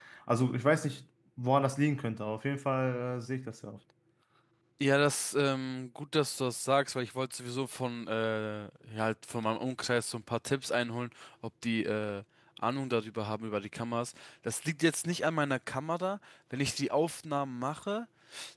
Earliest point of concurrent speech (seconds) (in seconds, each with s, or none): none